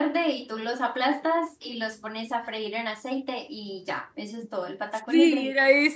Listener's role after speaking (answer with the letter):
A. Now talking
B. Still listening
A